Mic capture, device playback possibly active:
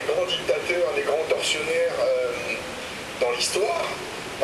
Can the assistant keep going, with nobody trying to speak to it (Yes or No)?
Yes